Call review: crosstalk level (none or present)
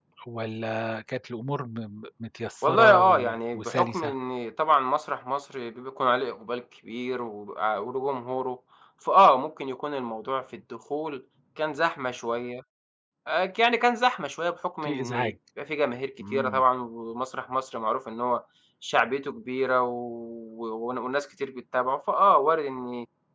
present